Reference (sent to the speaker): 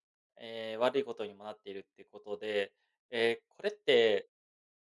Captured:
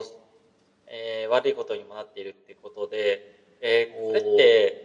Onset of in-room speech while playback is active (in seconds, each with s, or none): 3.9 s